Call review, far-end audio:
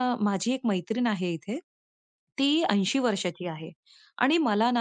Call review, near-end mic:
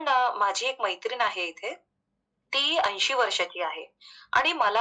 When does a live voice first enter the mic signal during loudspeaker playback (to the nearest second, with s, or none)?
none